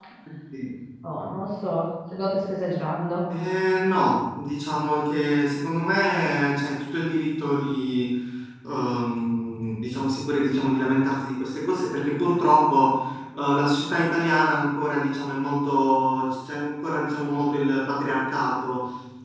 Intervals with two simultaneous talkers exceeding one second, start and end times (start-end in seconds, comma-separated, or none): none